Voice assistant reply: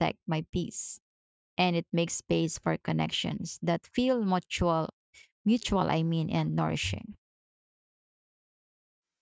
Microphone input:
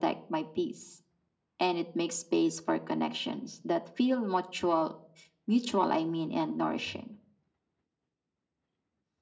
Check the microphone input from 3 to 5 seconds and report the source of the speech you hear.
echo only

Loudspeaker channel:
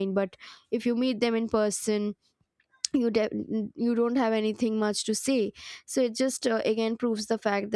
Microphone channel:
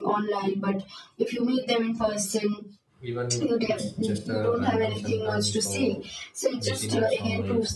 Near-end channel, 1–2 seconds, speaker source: echo only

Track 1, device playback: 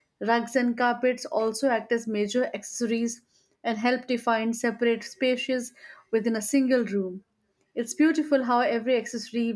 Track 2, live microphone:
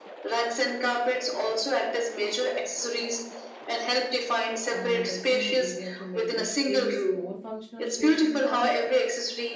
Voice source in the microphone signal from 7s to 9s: both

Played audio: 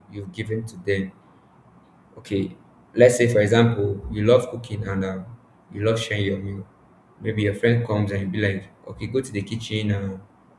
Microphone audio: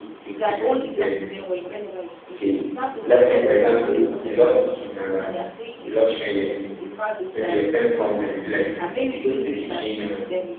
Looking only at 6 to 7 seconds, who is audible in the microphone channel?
both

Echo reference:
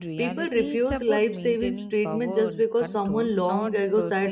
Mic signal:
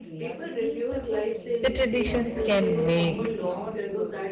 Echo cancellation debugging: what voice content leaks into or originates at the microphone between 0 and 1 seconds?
echo only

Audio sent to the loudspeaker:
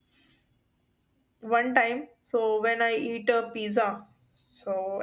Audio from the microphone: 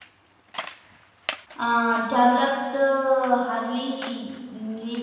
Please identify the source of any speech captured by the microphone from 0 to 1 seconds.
neither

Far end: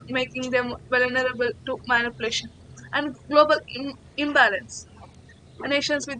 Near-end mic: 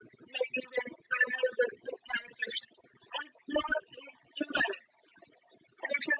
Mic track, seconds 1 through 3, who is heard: echo only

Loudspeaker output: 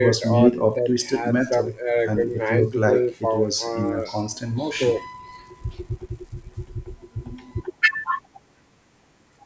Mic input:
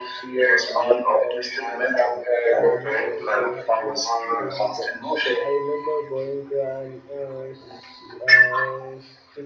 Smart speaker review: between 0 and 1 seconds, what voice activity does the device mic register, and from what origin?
echo only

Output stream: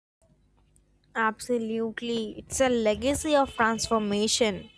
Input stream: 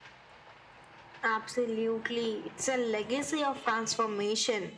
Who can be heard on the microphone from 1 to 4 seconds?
echo only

